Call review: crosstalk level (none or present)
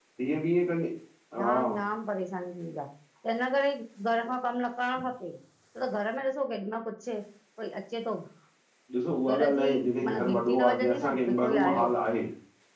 present